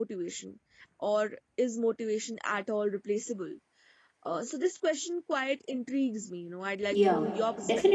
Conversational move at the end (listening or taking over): taking over